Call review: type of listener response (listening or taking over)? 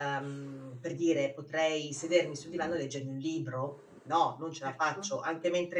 listening